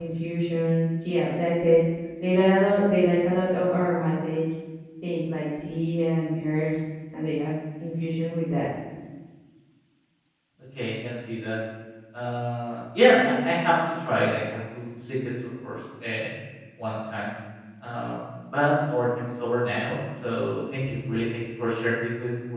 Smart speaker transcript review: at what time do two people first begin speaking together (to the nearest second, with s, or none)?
none